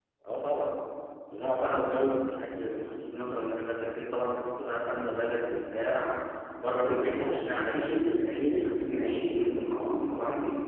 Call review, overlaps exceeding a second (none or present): present